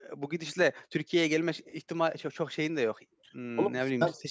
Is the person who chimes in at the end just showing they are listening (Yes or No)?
Yes